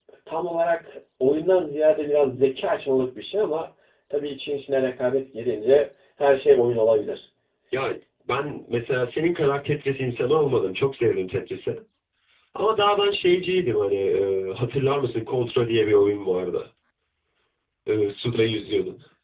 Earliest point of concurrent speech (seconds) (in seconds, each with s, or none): none